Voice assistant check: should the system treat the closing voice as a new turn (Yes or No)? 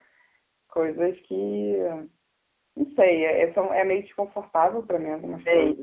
Yes